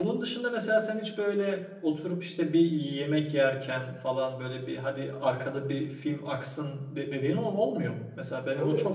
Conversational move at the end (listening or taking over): taking over